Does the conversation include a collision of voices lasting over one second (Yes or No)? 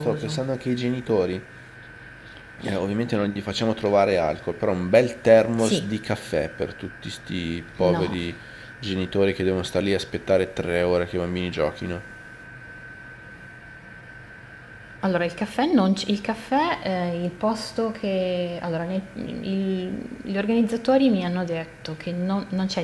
No